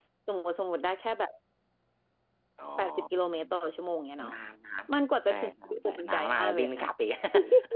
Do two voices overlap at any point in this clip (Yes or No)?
Yes